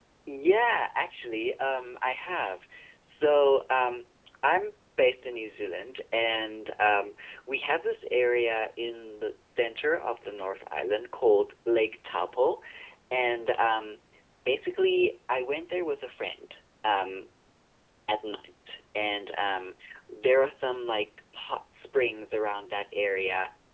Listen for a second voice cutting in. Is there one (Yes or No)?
No